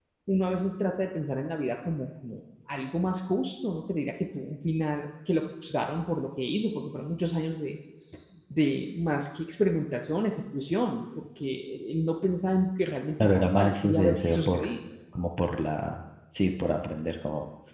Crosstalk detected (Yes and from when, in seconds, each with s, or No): Yes, from 13.2 s